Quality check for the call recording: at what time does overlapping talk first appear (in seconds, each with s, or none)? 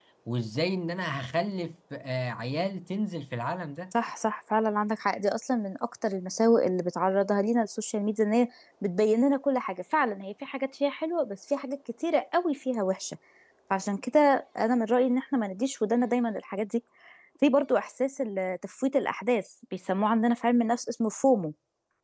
none